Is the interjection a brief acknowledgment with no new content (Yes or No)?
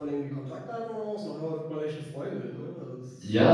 No